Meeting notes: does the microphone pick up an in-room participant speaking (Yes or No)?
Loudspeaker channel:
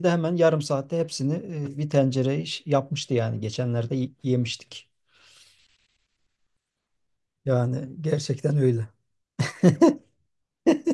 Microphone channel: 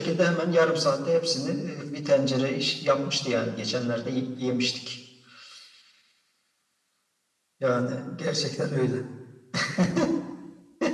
No